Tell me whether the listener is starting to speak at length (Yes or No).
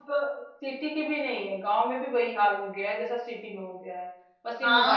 Yes